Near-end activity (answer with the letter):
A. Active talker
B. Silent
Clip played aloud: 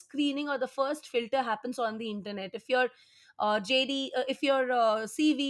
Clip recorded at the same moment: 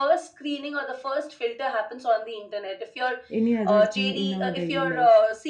A